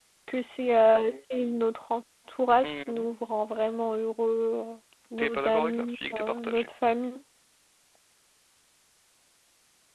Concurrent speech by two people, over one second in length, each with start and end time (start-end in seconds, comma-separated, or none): 5.2-6.7